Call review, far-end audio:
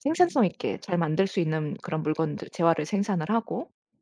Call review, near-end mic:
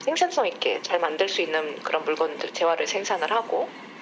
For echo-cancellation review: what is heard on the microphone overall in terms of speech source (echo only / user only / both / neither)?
echo only